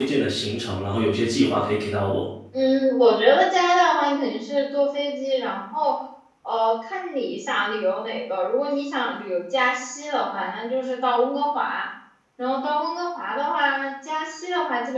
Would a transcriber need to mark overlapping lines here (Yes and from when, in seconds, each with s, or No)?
No